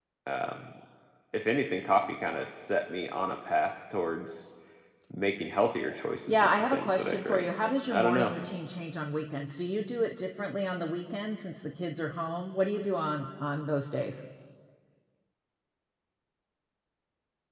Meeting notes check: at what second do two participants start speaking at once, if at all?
6.3 s

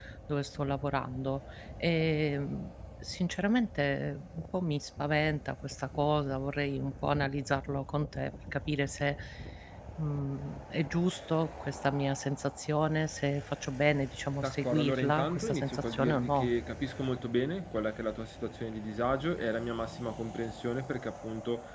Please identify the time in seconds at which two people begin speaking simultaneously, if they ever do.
14.4 s

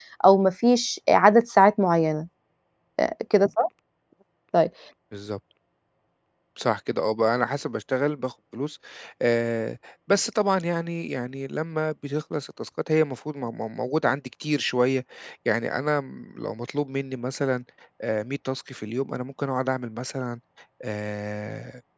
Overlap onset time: none

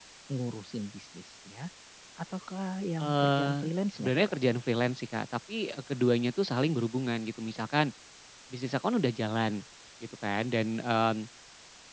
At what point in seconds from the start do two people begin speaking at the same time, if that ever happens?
3.0 s

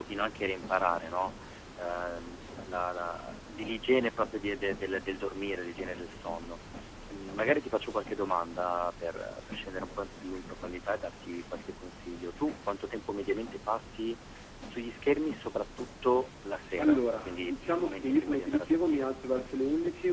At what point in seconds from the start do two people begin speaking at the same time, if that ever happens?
16.8 s

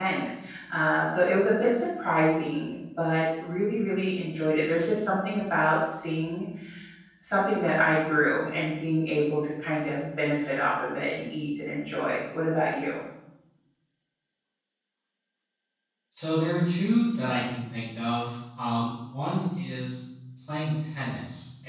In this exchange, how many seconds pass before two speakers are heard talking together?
none

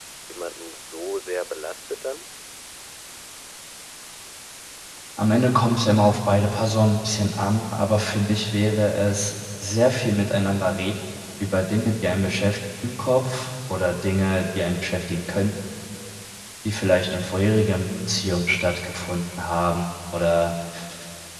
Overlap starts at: none

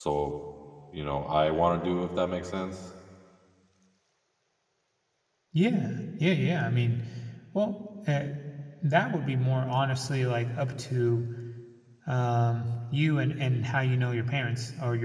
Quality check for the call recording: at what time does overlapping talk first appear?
none

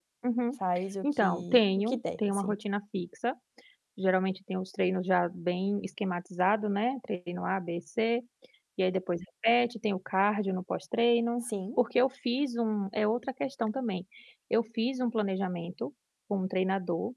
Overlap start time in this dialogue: 1.0 s

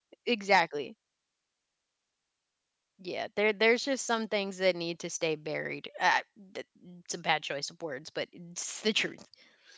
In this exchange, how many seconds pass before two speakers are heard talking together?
none

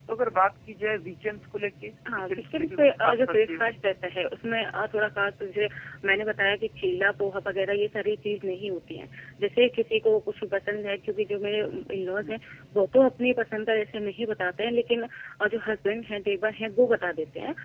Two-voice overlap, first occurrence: 2.0 s

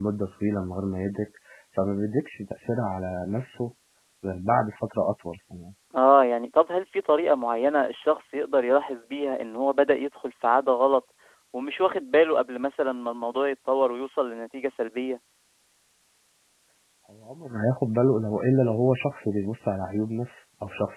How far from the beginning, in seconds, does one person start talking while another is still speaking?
none

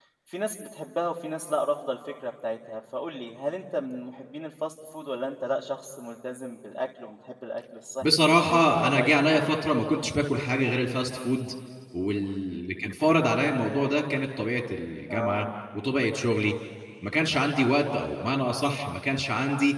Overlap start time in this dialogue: 8.0 s

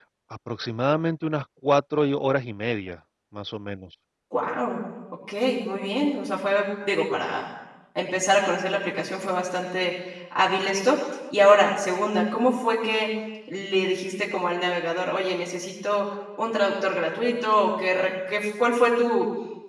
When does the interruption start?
none

